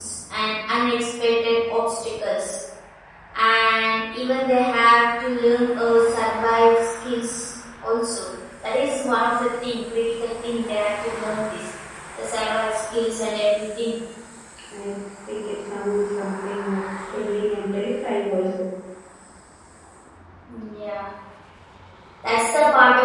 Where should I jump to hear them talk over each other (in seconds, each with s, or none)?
none